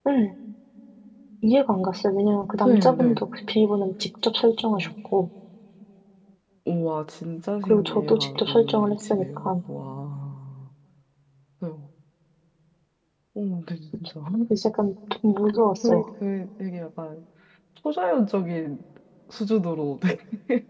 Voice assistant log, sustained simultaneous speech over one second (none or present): present